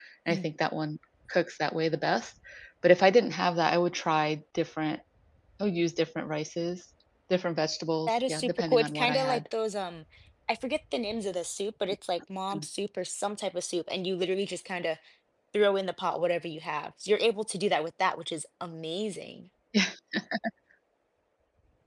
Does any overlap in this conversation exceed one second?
Yes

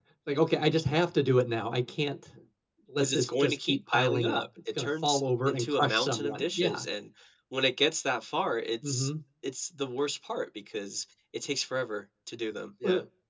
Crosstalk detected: Yes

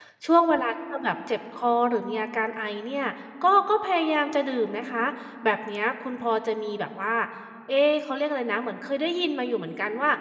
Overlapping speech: No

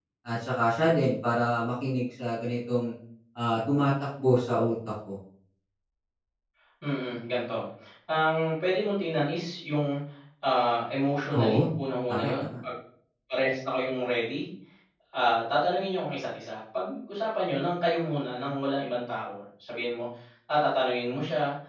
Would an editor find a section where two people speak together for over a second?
No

